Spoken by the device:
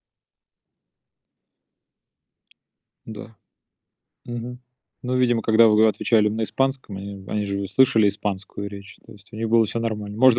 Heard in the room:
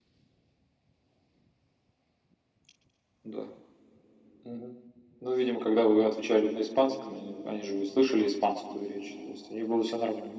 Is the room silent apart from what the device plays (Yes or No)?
Yes